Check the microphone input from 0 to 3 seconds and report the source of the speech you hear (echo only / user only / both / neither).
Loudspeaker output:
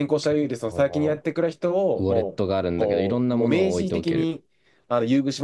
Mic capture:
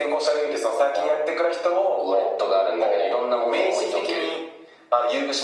echo only